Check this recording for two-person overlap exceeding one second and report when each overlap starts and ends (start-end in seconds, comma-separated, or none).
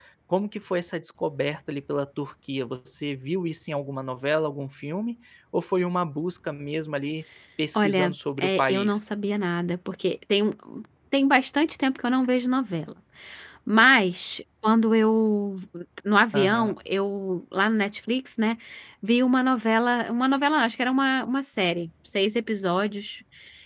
7.7-9.1